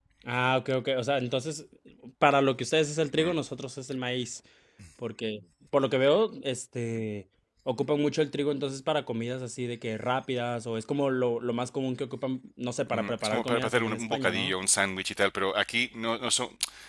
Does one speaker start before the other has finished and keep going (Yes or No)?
Yes